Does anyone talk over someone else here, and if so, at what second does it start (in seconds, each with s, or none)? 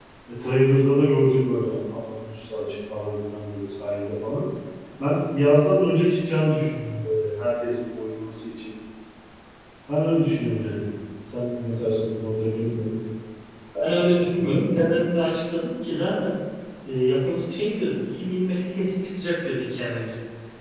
none